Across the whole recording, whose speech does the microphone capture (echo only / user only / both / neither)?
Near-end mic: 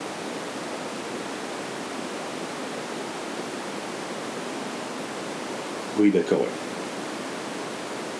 user only